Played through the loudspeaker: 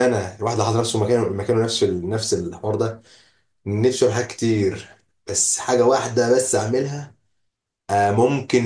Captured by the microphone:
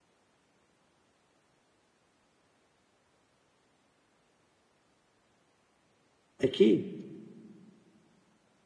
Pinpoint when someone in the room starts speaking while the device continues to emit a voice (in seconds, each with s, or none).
6.4 s